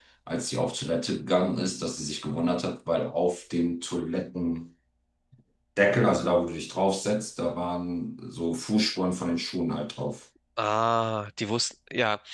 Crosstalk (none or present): none